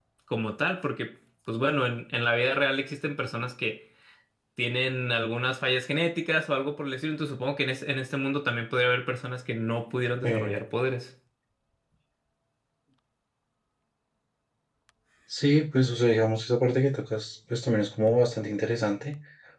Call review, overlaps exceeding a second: none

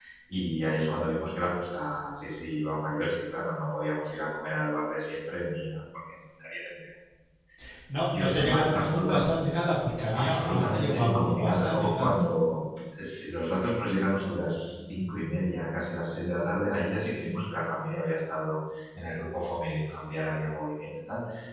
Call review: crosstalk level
present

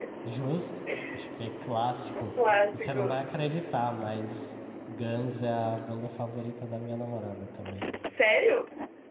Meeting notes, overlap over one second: none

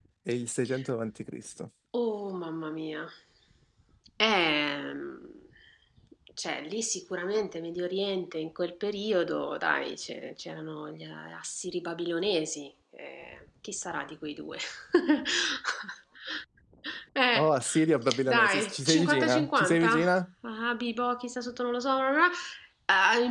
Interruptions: present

